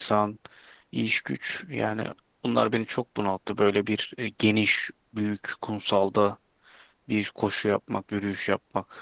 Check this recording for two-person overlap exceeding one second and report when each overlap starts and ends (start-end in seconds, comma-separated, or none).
none